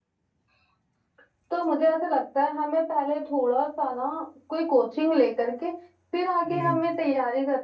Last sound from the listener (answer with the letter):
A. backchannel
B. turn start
A